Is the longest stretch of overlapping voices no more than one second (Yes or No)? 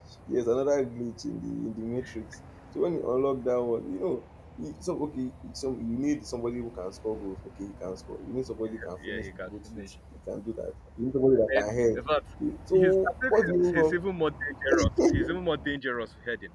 No